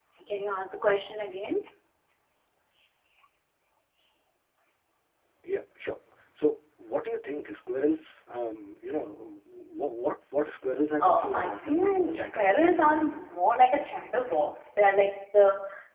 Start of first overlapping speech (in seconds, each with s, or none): 11.0 s